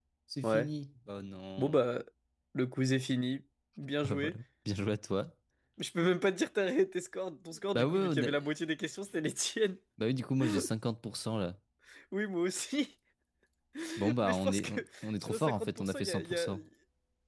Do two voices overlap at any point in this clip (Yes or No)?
Yes